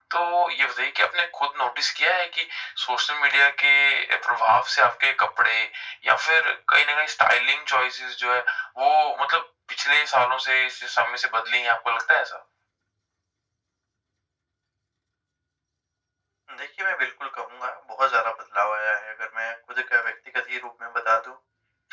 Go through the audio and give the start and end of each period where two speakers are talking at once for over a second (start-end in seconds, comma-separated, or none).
none